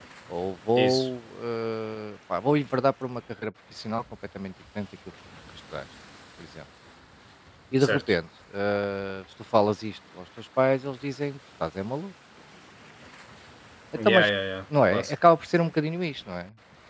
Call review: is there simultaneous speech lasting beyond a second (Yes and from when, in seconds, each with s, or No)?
No